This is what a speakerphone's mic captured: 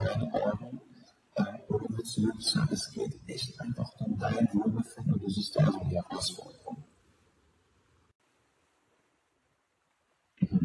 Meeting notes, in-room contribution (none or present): none